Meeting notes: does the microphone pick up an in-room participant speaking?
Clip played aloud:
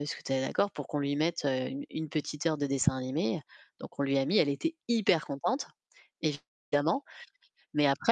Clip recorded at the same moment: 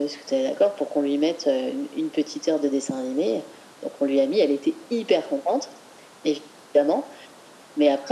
No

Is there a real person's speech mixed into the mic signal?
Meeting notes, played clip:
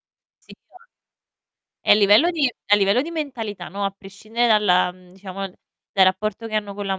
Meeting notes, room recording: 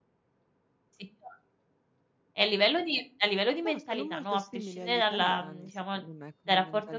Yes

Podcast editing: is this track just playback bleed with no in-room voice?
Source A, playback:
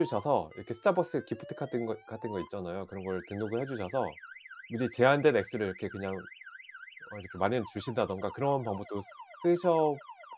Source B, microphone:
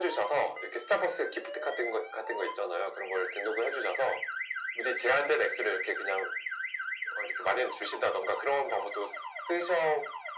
Yes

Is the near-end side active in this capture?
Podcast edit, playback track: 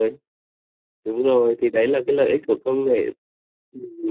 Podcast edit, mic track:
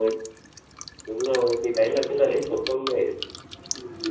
No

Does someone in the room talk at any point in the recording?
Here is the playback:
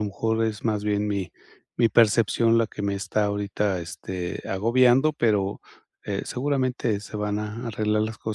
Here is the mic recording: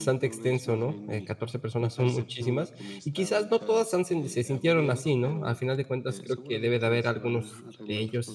Yes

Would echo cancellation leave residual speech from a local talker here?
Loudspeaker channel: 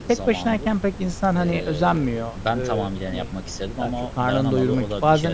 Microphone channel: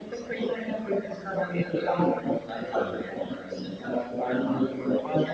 Yes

